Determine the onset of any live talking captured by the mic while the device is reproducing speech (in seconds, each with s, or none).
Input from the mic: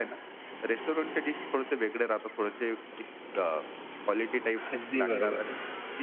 4.7 s